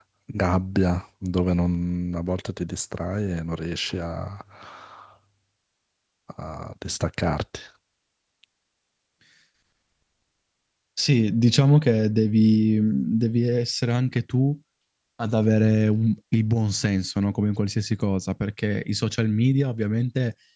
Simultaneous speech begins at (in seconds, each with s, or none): none